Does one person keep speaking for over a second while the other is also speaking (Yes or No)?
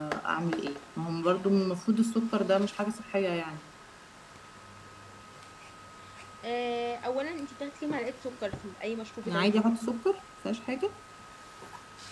No